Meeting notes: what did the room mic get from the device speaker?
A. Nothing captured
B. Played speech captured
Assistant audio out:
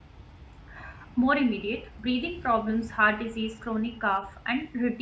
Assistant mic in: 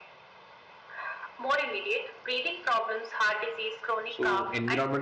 B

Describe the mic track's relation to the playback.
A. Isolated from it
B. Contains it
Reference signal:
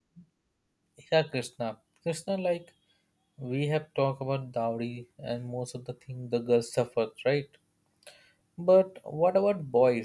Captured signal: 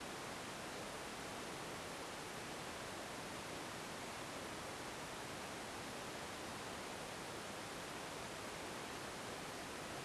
A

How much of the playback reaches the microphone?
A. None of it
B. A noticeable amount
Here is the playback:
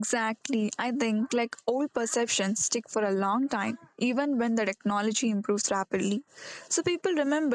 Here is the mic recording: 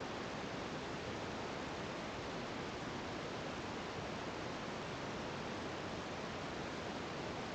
A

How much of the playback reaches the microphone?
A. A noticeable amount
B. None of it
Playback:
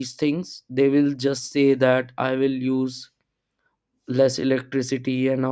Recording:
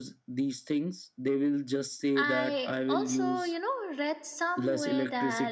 A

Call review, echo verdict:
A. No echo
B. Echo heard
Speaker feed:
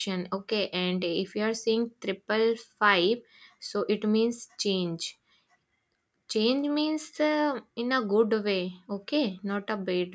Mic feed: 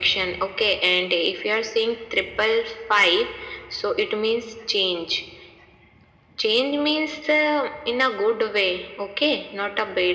B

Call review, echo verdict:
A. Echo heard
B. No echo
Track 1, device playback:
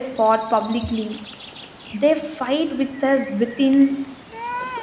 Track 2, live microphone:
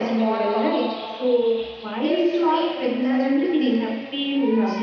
A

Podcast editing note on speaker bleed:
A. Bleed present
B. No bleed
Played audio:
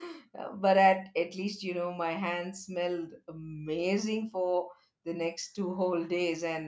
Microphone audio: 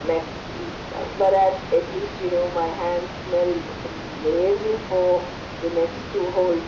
A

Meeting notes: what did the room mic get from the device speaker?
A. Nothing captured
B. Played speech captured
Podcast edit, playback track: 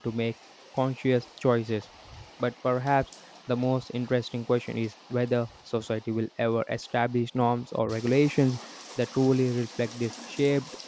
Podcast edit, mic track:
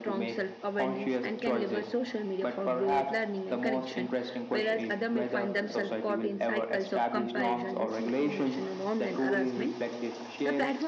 B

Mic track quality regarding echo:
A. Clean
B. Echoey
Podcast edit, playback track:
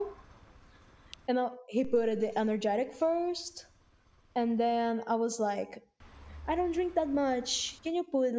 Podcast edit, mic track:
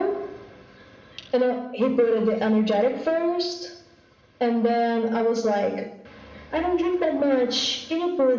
B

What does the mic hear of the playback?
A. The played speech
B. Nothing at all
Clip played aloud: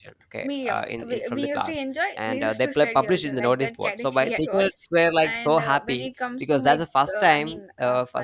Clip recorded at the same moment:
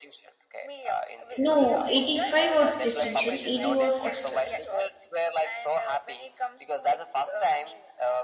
A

